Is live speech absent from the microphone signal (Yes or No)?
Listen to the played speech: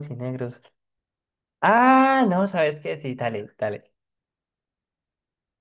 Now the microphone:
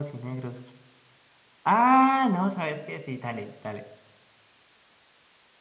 Yes